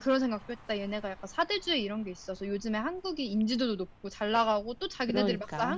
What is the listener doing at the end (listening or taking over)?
listening